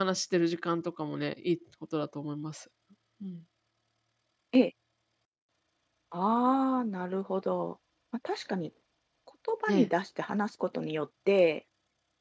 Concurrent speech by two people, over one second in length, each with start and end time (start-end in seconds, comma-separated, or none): none